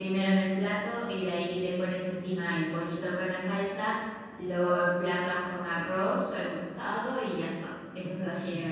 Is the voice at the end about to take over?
Yes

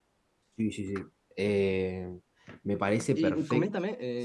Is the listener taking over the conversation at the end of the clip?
Yes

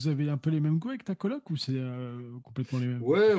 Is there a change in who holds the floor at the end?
Yes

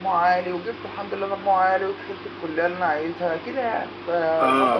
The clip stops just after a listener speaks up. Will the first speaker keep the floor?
No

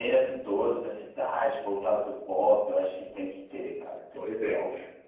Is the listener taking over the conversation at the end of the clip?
Yes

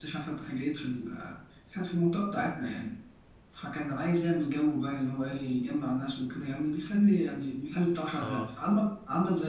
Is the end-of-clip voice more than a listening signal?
No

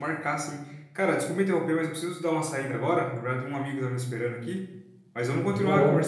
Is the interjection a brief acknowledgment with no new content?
Yes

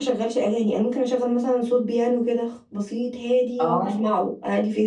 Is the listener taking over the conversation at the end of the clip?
No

